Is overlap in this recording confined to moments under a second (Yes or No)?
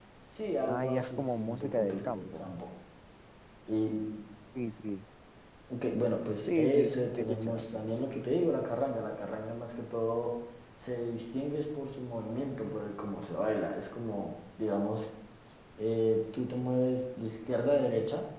No